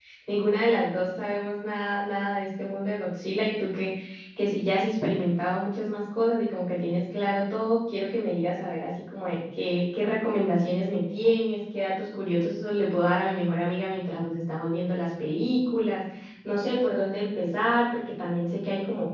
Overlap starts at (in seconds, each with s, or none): none